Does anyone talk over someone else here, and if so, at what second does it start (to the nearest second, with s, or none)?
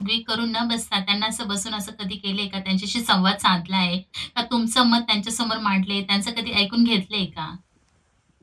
none